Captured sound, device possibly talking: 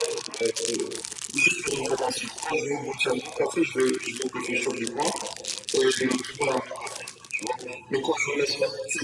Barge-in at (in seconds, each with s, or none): none